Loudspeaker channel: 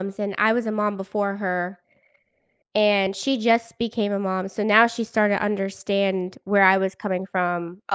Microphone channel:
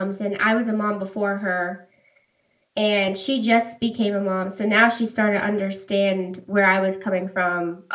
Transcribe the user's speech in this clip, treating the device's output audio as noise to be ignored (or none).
none